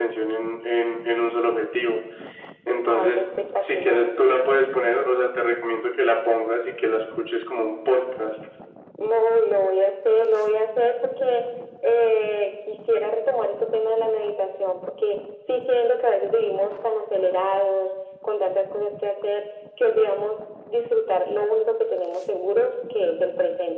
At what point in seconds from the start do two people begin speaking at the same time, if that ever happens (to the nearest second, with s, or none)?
3 s